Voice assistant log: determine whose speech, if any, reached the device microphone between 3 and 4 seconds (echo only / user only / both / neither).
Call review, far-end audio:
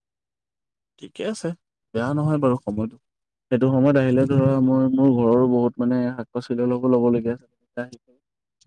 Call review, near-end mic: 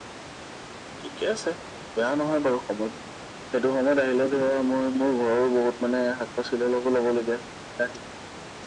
echo only